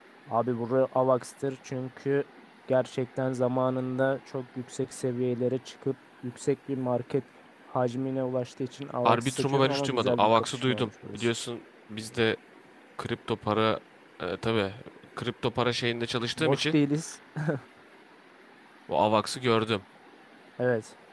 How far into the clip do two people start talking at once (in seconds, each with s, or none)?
9.1 s